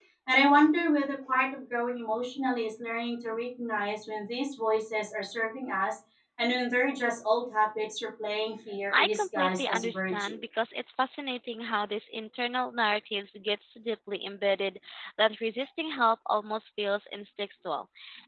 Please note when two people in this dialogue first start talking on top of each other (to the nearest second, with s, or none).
9 s